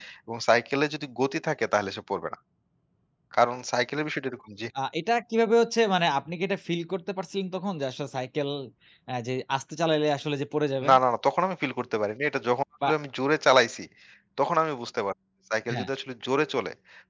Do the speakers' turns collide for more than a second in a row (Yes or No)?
No